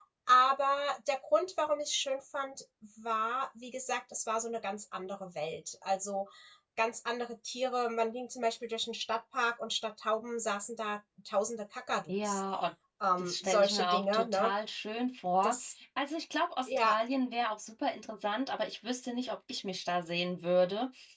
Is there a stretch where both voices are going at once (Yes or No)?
Yes